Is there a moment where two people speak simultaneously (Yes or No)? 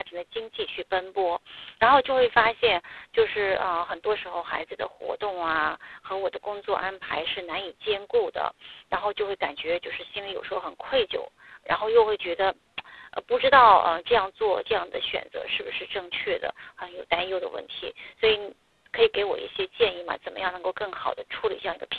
No